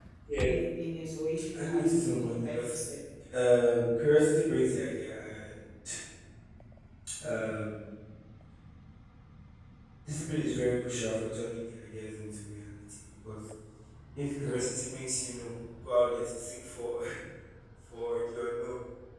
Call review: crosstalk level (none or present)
present